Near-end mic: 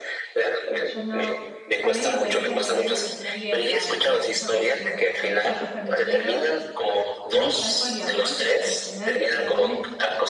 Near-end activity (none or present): present